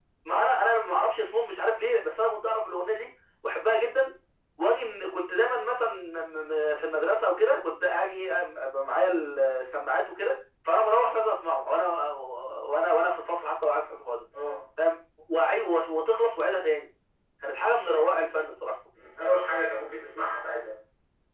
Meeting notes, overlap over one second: none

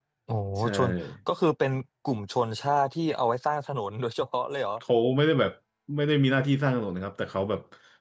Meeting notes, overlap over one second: none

